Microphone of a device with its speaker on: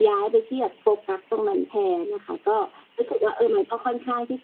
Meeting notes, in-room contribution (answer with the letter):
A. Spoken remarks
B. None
B